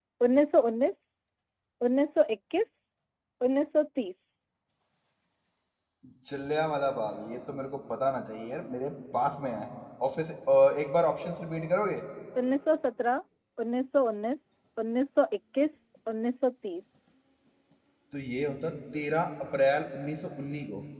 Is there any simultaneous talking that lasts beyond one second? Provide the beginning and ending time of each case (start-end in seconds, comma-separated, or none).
none